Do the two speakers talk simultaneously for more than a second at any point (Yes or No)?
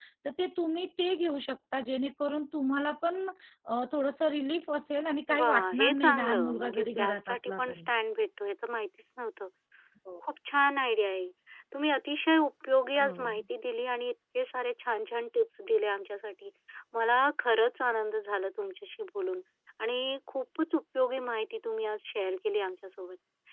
Yes